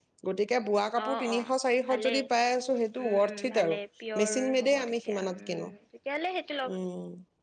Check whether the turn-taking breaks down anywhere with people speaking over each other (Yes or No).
Yes